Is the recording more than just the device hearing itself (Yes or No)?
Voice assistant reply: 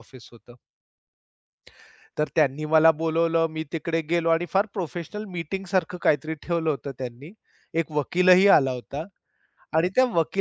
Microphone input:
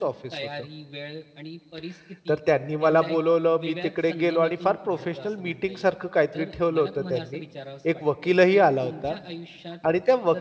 Yes